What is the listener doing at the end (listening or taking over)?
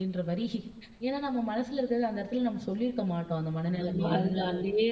taking over